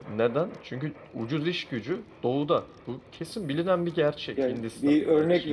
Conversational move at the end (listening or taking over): taking over